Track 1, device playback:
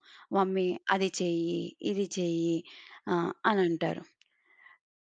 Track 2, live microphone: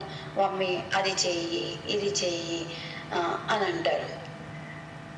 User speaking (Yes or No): No